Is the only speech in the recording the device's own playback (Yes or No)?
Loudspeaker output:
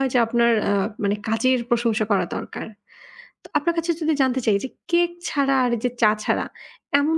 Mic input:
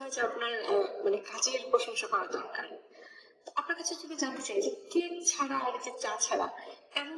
Yes